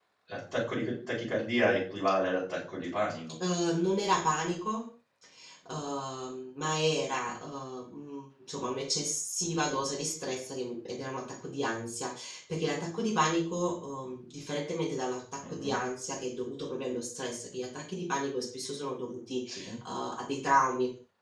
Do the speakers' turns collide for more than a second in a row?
No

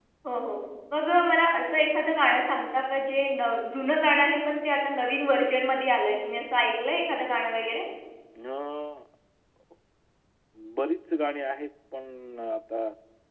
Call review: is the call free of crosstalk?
Yes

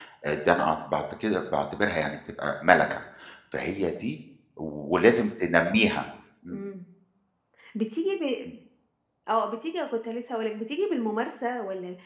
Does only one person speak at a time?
Yes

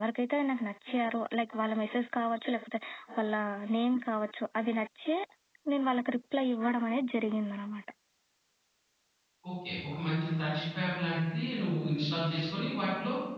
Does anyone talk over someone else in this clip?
No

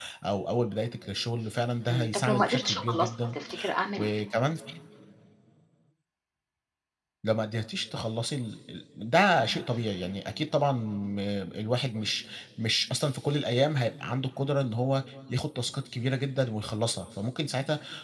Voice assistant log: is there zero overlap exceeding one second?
No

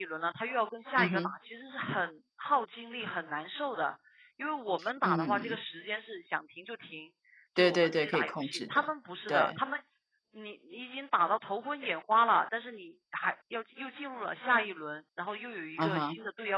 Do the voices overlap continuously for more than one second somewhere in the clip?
Yes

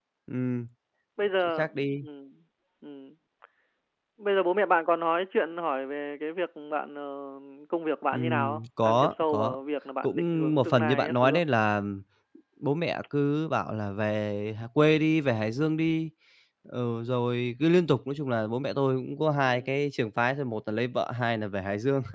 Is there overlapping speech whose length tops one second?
Yes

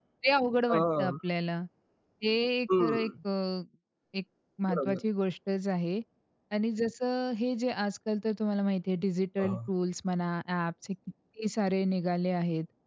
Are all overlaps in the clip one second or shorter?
Yes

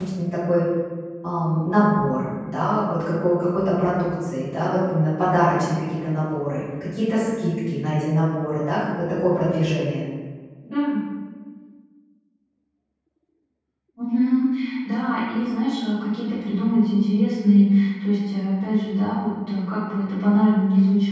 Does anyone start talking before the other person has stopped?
No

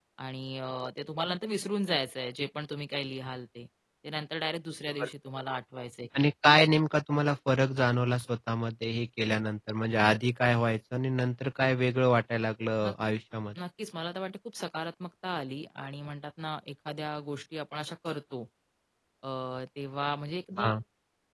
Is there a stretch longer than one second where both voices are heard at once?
No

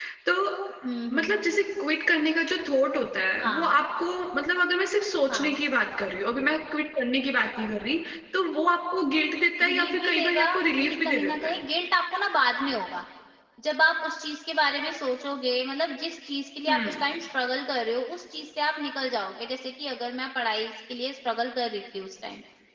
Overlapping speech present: Yes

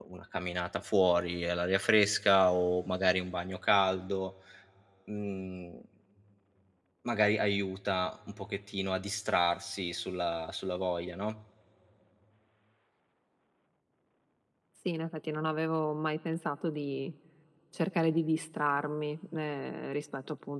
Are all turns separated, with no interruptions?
Yes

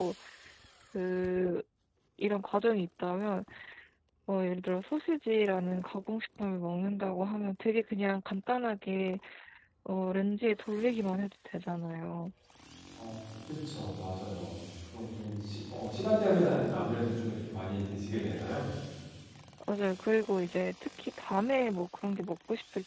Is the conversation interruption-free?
Yes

